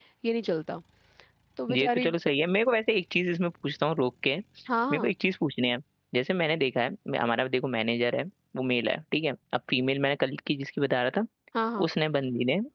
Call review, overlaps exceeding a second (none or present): none